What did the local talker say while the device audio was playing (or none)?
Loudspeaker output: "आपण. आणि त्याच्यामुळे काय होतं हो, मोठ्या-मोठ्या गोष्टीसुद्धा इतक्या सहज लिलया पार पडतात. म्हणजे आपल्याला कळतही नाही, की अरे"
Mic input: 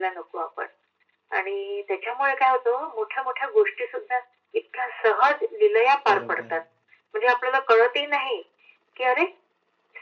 बरोबर.